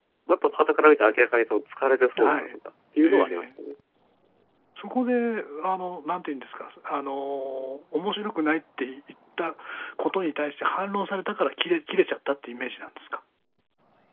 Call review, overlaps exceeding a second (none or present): none